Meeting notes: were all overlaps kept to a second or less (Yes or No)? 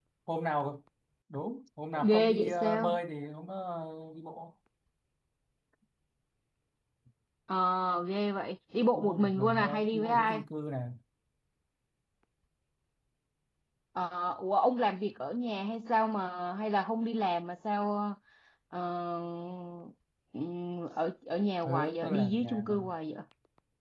No